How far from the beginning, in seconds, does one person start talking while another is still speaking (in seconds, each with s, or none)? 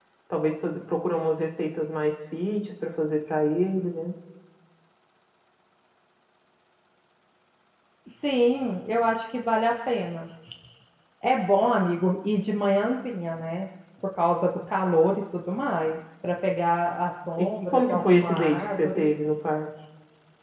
17.4 s